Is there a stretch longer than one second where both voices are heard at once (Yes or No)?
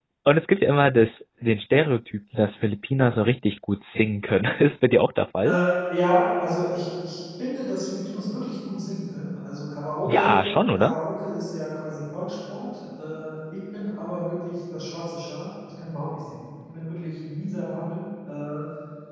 No